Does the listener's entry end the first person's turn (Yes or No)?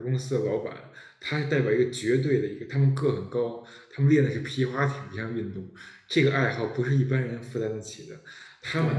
Yes